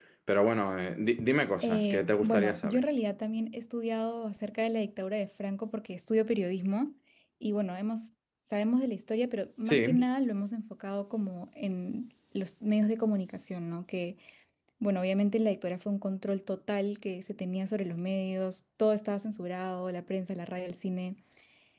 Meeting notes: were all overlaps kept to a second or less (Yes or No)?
No